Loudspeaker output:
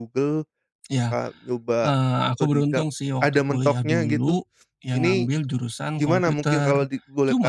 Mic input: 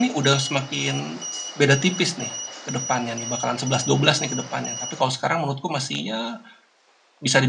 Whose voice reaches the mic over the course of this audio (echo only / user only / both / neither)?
user only